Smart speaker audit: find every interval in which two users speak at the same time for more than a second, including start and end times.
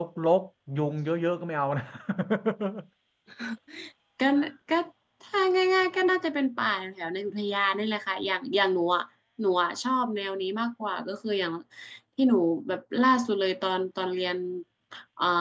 none

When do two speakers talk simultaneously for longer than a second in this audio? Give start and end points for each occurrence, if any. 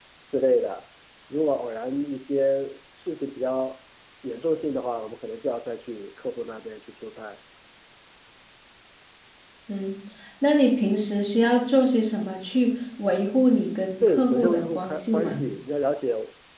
14.1-15.4

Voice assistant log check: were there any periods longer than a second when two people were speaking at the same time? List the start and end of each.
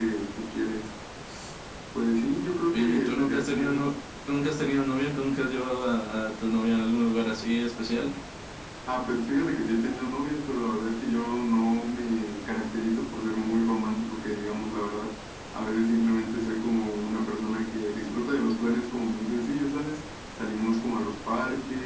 2.7-4.0

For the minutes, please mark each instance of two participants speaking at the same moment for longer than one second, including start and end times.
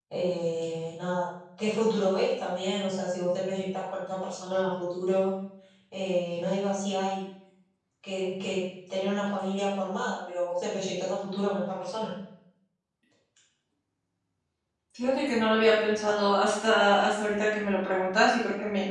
none

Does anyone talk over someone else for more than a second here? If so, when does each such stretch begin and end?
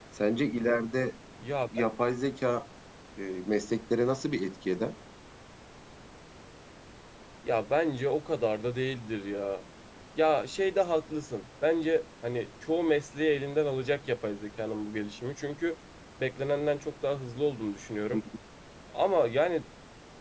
none

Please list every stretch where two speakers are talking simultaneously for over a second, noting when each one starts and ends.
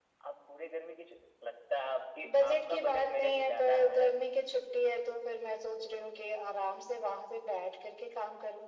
2.3-4.0

